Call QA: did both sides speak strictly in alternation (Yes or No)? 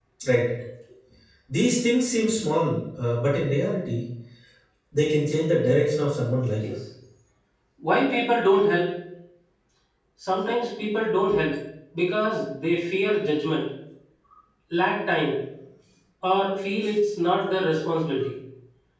Yes